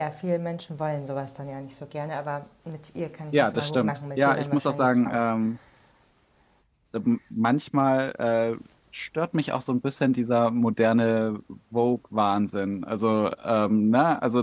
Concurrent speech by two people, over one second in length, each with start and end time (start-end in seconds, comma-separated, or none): 3.3-5.2